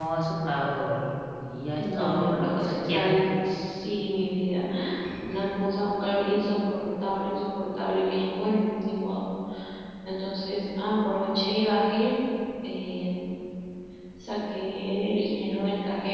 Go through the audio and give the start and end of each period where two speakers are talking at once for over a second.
1.7-3.1

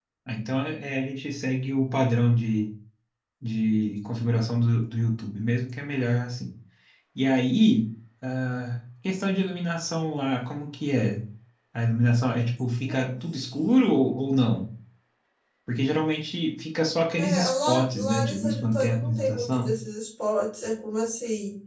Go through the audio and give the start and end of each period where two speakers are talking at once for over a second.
17.2-19.7

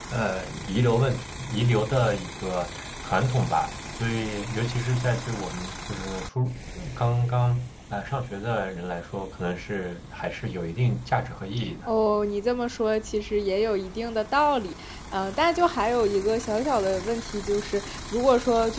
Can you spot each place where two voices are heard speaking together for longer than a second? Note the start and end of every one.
none

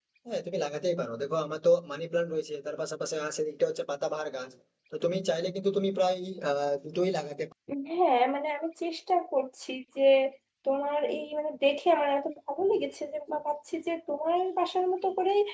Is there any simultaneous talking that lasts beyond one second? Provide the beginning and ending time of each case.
none

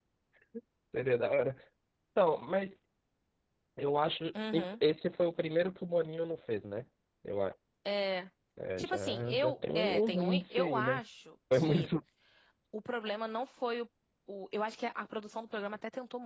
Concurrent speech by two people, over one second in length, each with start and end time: 8.8-11.0

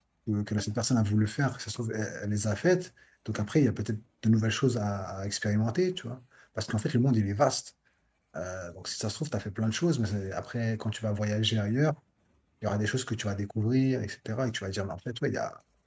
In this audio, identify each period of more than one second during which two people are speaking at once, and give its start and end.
none

